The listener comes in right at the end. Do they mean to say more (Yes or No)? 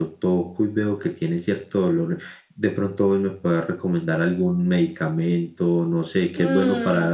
Yes